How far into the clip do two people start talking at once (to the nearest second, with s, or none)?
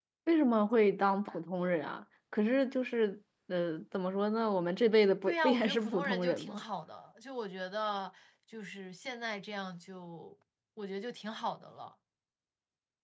5 s